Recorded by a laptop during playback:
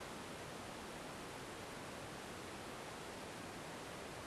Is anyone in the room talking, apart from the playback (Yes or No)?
No